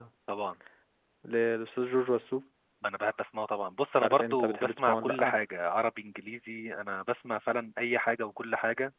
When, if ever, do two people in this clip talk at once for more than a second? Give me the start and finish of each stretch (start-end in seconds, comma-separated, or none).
4.0-5.3